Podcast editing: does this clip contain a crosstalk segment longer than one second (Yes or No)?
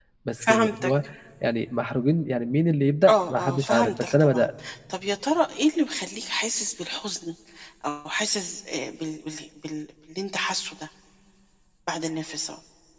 Yes